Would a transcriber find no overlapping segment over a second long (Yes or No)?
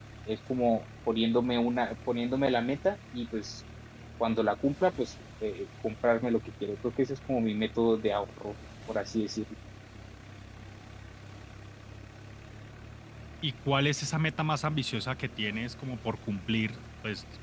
Yes